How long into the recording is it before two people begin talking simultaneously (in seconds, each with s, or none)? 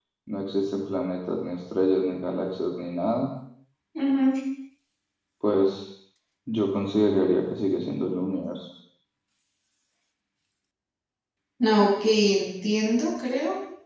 none